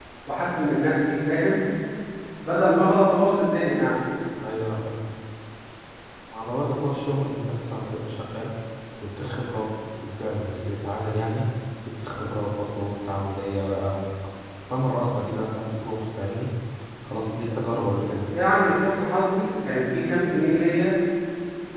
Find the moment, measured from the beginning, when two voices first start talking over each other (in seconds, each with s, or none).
none